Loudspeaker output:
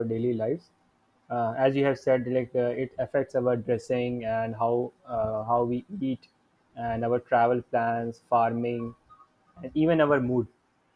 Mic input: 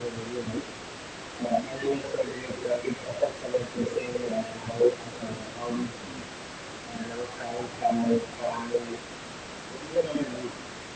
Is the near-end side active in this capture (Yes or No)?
No